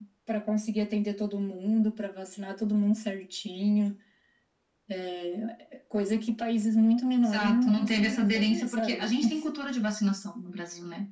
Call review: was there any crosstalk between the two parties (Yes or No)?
Yes